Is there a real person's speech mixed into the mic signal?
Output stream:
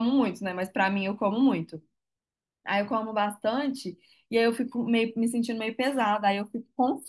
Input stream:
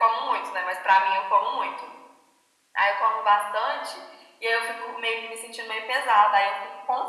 No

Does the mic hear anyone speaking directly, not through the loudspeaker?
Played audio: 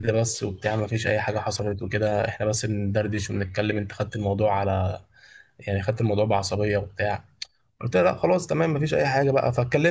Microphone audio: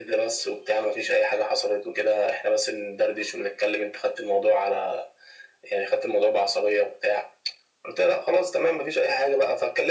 No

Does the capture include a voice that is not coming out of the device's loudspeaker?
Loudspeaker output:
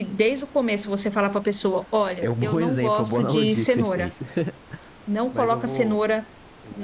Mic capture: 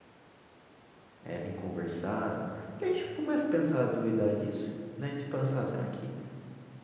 Yes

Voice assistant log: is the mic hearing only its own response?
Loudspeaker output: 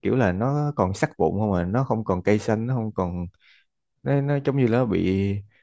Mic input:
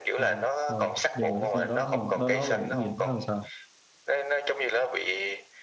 No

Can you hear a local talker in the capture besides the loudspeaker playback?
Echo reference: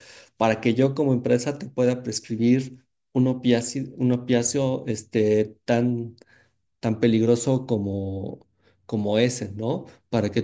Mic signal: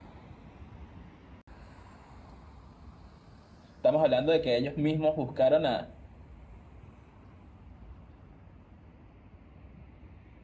Yes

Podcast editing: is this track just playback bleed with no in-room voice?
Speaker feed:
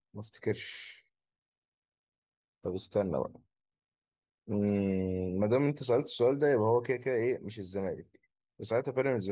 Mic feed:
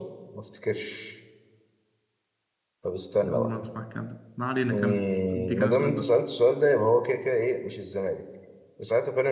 No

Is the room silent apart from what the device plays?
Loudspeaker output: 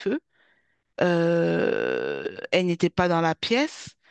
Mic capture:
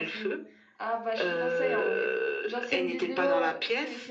No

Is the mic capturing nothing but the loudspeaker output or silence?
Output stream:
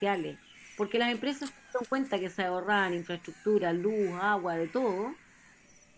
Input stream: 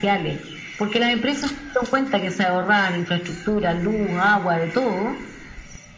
Yes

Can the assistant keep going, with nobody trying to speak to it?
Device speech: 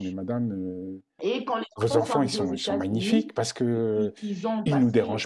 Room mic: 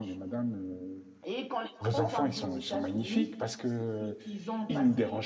Yes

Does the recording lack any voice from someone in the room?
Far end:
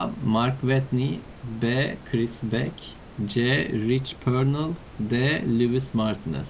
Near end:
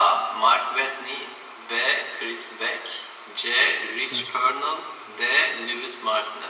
No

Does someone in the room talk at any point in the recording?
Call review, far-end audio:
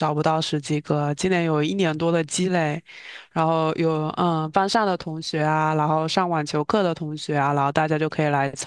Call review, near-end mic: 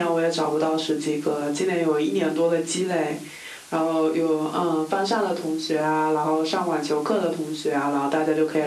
No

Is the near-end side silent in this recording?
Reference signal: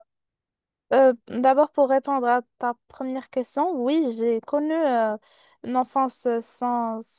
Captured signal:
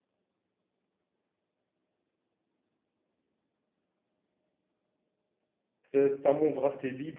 No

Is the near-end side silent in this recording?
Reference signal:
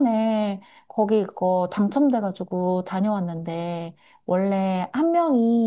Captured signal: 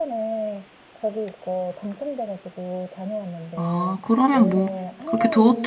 No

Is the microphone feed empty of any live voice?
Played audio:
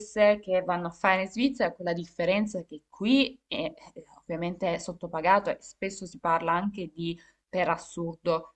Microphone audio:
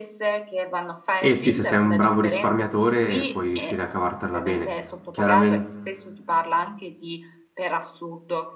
No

